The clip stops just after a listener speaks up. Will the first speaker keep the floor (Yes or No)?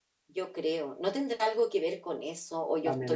No